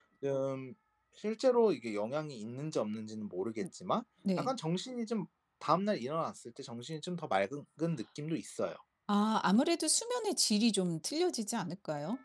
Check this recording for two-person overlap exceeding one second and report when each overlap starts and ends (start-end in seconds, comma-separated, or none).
none